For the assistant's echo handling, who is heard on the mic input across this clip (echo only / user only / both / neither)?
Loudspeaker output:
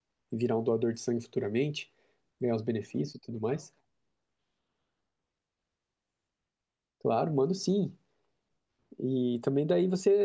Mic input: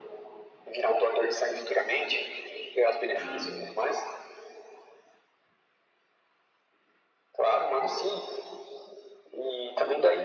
both